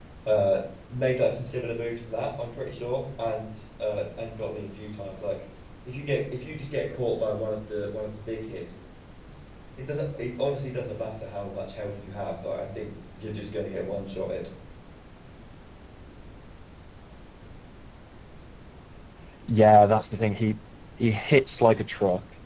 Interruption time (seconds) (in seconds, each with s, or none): none